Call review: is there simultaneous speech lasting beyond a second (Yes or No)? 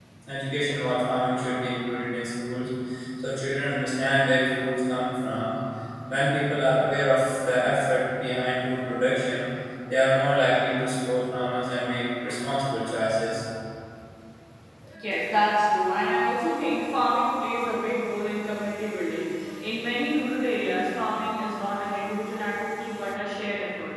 No